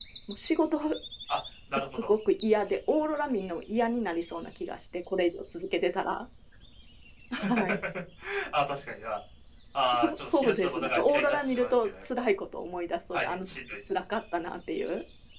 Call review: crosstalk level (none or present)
present